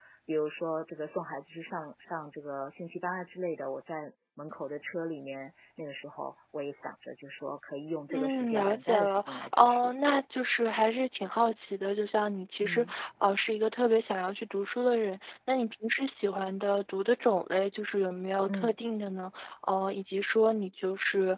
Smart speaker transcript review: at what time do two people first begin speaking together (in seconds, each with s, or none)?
8.1 s